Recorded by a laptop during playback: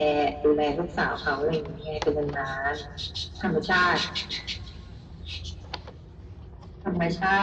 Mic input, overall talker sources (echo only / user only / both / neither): echo only